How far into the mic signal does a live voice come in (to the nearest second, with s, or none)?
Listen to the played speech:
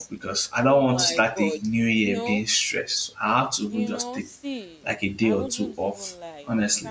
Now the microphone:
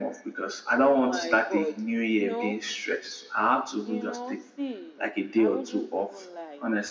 none